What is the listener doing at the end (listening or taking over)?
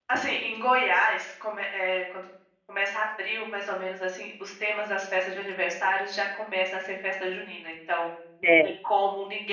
listening